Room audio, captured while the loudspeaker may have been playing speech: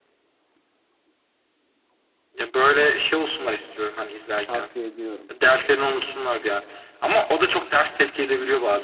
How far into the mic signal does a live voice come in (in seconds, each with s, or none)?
4.4 s